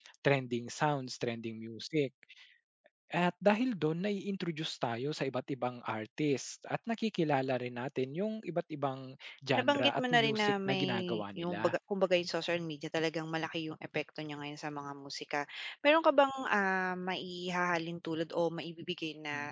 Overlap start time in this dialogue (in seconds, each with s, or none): 9.6 s